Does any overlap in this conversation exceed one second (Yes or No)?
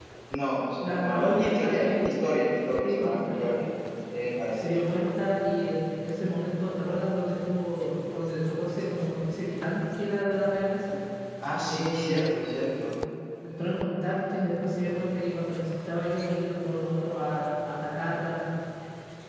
Yes